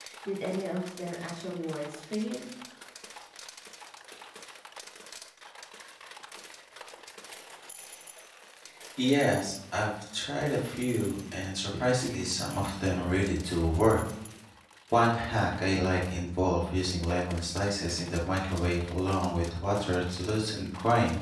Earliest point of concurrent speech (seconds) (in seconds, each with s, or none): none